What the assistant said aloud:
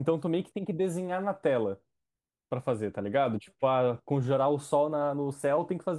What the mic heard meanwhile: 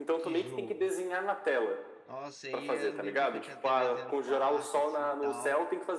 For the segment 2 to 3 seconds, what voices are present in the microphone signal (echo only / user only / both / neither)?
both